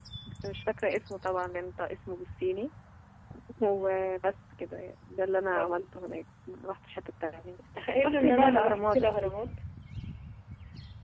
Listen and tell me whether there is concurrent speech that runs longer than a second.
Yes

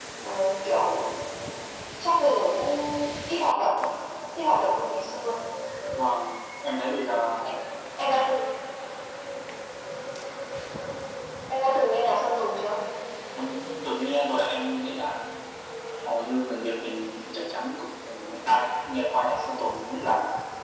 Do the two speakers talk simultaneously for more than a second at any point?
No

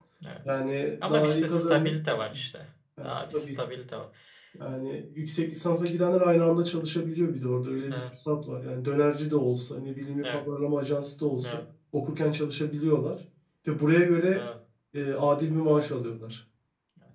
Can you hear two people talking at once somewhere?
Yes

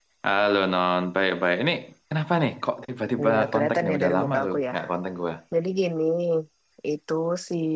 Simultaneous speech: Yes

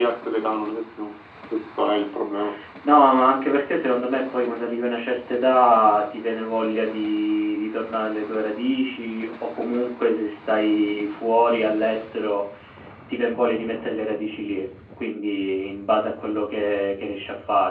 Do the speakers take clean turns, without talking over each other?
Yes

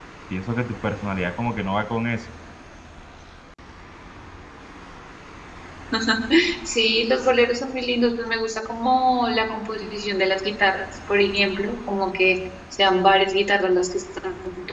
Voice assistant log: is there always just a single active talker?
Yes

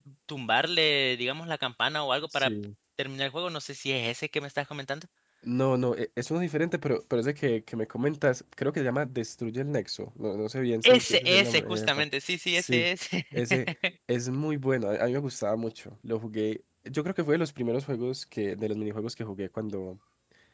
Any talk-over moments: Yes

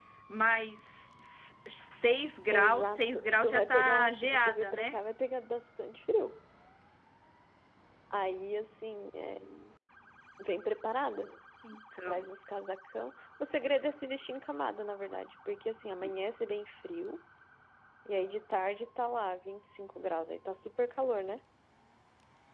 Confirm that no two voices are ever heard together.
No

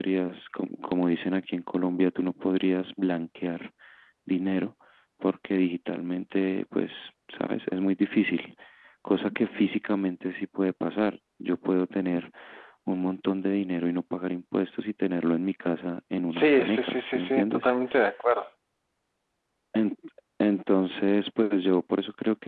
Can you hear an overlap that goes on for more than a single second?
Yes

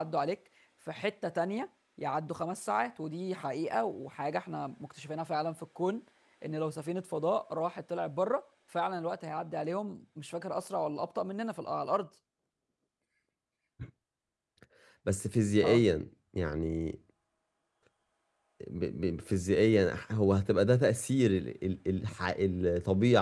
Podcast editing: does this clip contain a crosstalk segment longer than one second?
No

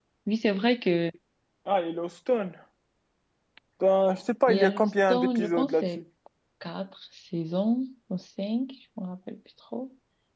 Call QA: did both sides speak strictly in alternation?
No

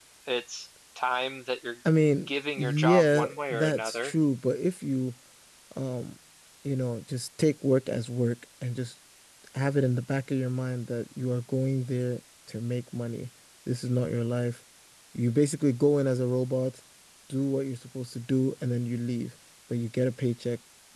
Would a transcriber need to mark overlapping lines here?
Yes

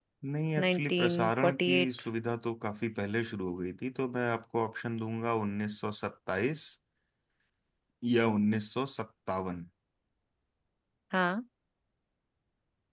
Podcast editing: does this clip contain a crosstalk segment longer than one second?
Yes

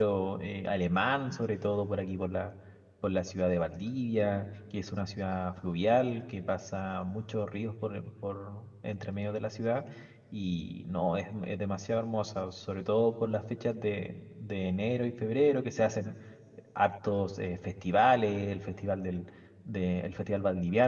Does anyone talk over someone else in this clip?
No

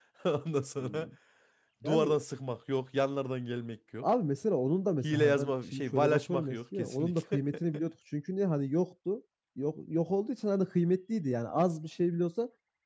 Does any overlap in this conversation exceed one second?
Yes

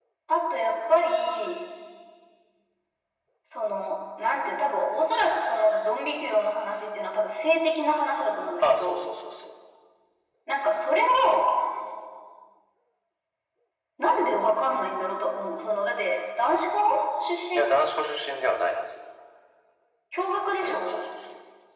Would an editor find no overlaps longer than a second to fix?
Yes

